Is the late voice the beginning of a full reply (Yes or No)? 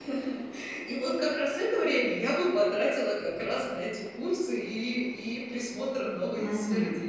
Yes